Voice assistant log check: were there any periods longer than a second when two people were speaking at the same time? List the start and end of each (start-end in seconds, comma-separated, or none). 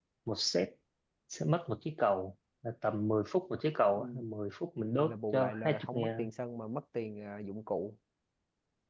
5.0-6.3